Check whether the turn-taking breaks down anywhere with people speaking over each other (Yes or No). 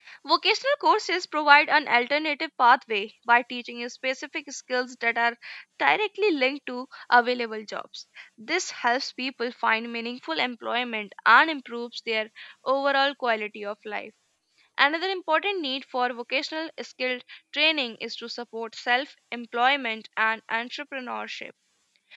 No